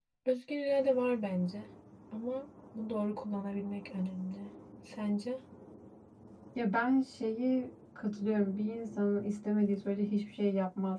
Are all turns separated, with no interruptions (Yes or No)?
Yes